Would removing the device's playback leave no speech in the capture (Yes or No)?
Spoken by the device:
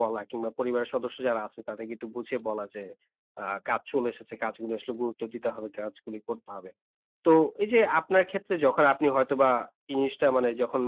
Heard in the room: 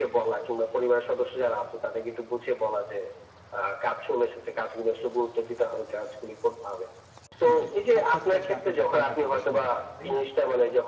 No